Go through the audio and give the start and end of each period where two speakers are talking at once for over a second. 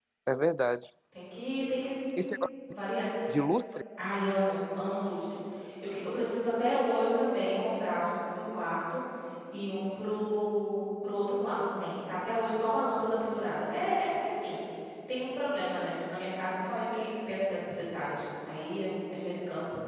none

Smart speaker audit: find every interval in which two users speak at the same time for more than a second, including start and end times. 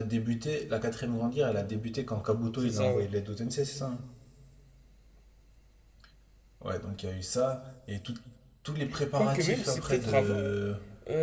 9.1-10.5

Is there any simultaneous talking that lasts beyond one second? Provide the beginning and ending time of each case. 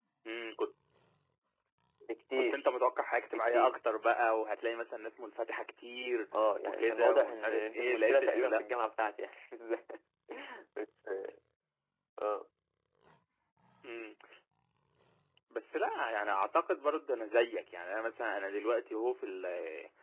6.7-8.5

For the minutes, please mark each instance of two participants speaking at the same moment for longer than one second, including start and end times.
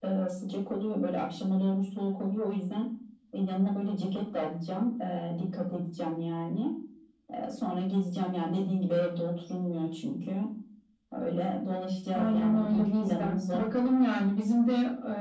12.1-13.6

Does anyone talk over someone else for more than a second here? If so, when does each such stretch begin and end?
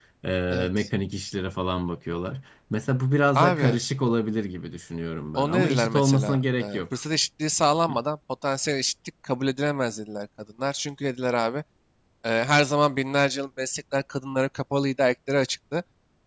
5.3-6.8

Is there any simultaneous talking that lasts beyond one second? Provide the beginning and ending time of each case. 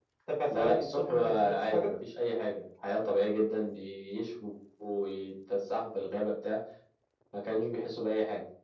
0.5-1.9

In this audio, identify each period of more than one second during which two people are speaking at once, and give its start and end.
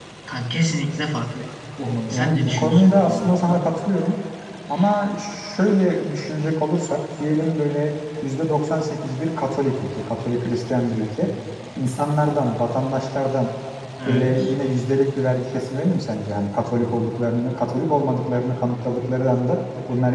2.1-3.6

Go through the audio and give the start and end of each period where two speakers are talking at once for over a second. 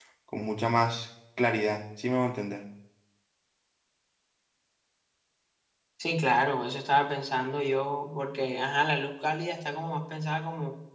none

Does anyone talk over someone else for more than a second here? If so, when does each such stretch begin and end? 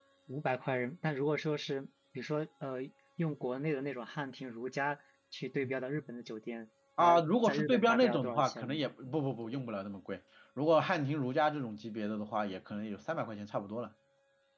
7.0-8.8

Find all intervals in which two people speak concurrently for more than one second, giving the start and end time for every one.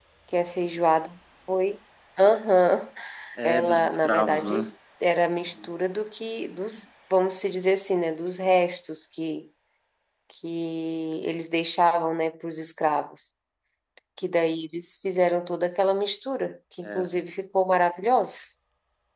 3.4-4.7

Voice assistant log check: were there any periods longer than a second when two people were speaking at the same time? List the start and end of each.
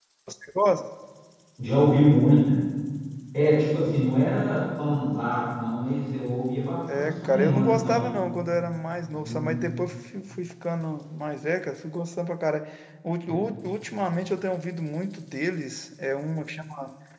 6.9-8.1

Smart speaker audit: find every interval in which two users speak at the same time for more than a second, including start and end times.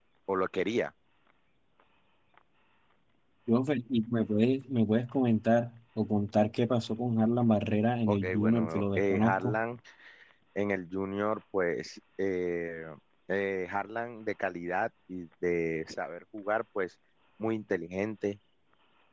8.1-9.6

